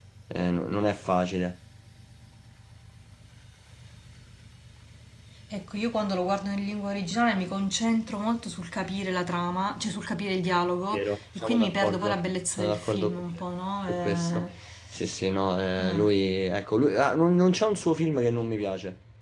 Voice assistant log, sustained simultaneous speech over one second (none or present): present